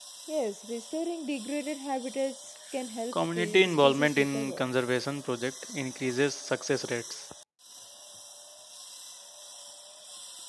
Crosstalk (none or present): present